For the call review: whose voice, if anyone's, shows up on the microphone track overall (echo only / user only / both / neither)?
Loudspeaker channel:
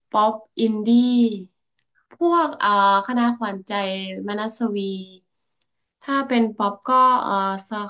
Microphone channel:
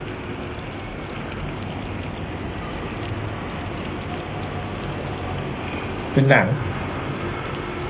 user only